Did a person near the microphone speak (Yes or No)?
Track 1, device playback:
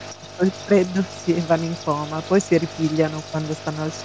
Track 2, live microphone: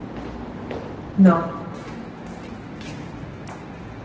Yes